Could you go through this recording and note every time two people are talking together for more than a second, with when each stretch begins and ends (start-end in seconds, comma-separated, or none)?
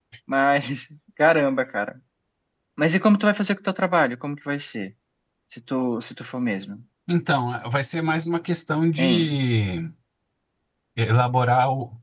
none